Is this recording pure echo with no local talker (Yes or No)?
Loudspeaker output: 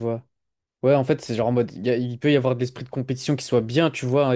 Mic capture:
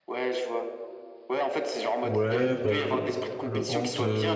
No